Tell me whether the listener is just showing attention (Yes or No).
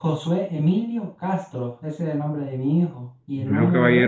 No